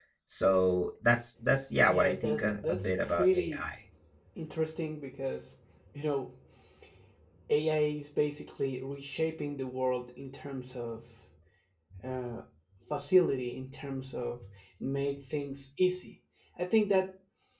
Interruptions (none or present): present